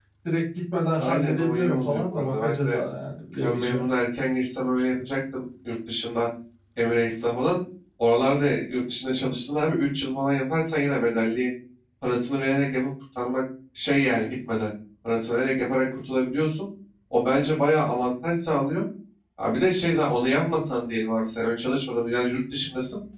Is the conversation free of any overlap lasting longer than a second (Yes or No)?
No